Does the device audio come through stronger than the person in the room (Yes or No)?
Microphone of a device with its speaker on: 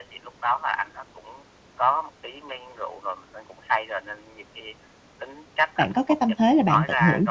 No